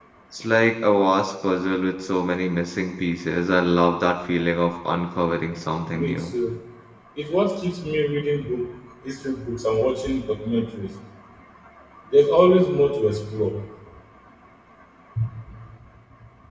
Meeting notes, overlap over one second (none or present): none